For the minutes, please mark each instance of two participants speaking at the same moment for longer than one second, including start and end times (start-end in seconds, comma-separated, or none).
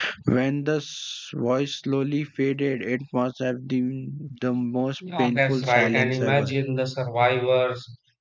5.2-6.5